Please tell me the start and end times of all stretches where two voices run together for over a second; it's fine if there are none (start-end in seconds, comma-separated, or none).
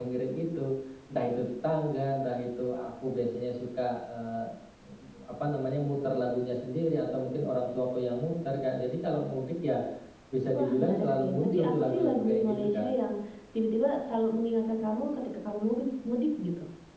10.6-12.9